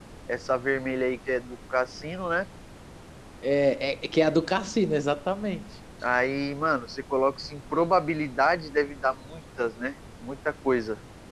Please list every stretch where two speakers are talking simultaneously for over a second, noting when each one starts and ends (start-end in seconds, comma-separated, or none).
none